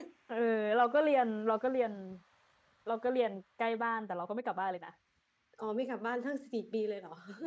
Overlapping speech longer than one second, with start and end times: none

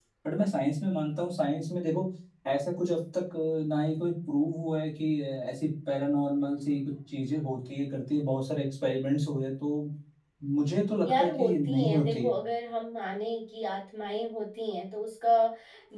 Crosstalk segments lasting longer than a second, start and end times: 11.0-12.3

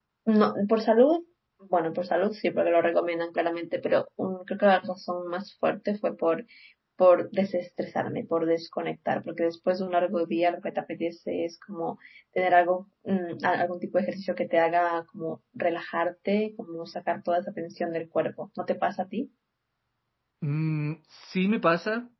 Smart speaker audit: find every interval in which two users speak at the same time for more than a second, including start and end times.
none

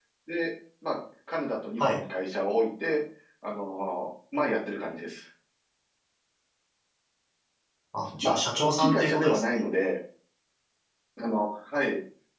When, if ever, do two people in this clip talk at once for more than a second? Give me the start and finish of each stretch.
8.2-9.4

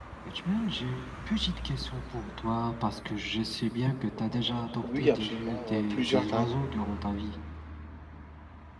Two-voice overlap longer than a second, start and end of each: 4.8-6.6

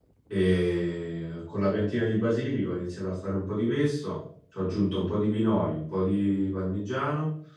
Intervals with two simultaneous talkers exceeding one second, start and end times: none

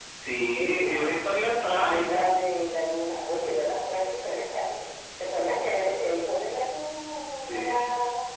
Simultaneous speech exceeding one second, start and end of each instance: 0.6-2.3

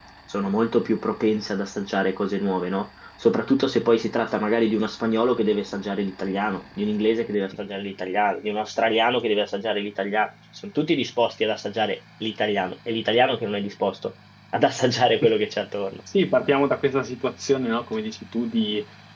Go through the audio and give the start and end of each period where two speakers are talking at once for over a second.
none

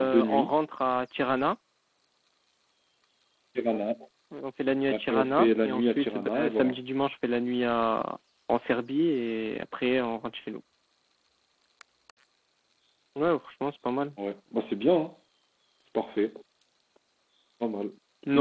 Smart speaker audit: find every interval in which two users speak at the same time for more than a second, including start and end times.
4.9-6.8

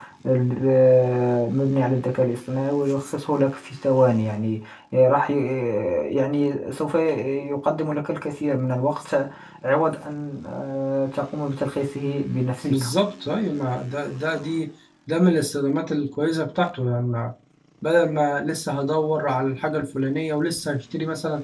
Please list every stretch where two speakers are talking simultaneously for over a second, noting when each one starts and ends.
none

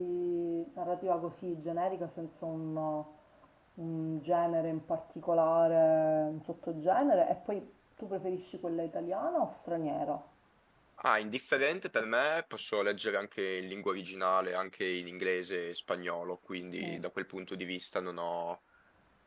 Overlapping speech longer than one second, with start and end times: none

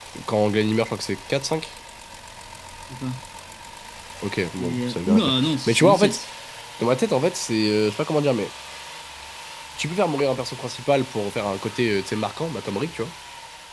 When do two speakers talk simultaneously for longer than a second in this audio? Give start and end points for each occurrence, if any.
4.6-6.2

